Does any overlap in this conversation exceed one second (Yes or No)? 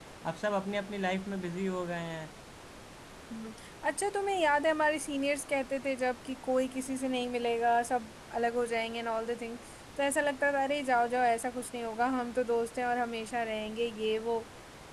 No